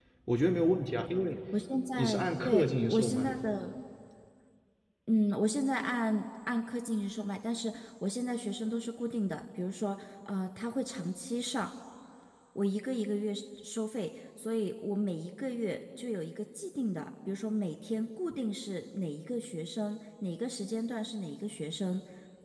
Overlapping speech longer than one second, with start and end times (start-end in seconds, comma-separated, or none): 2.0-3.4